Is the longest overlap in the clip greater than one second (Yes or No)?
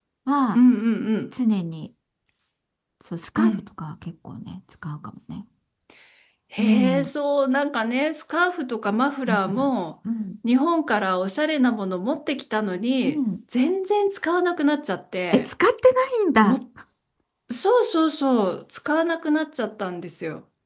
No